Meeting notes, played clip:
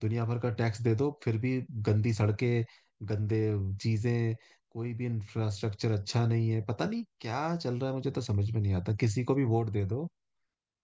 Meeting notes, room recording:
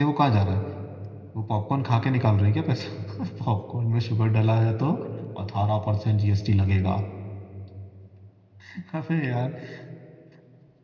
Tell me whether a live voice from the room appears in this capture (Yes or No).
Yes